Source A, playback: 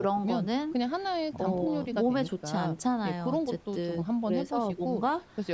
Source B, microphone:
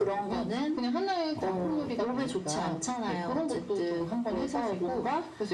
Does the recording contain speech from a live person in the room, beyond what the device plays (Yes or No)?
No